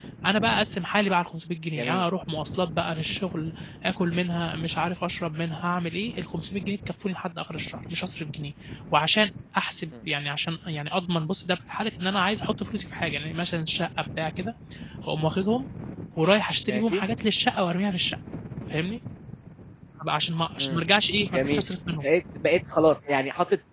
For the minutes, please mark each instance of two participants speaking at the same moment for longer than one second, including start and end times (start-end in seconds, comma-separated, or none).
none